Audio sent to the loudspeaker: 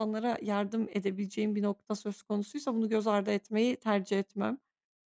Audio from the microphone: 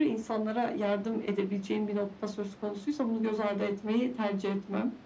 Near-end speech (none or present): none